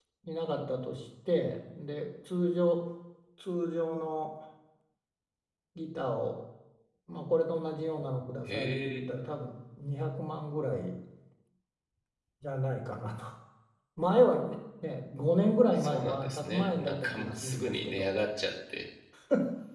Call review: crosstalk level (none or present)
present